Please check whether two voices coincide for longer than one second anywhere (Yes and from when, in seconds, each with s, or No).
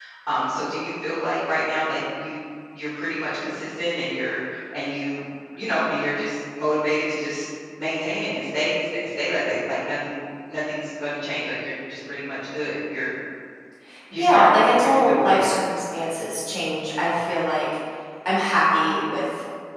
Yes, from 14.2 s